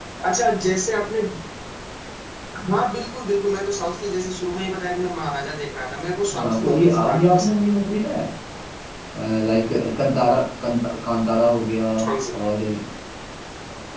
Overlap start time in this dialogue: 6.3 s

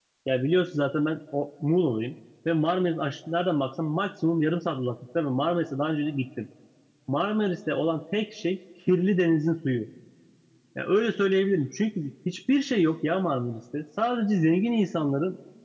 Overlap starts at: none

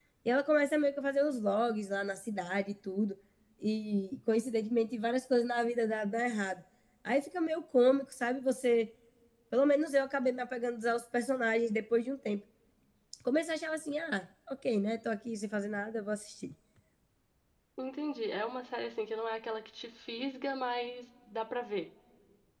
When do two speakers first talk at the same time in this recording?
none

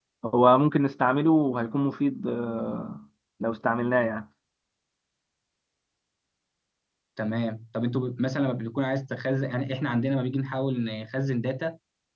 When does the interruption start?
none

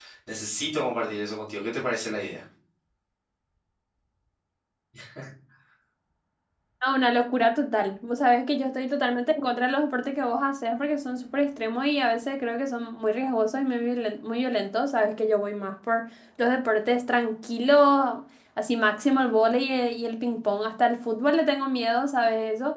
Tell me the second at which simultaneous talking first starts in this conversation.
none

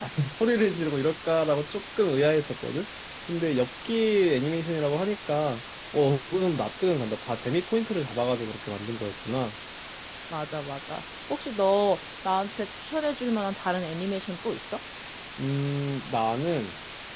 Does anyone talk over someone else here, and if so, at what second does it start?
none

